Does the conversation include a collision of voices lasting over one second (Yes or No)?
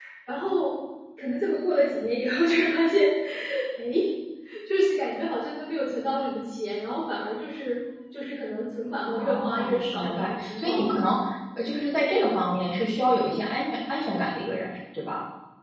Yes